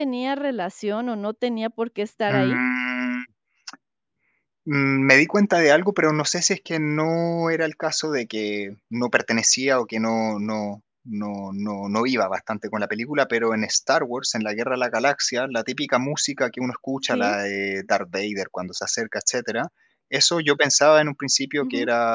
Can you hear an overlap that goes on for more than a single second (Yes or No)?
No